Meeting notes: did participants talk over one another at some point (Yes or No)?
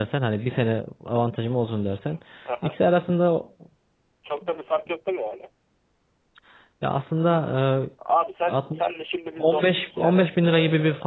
Yes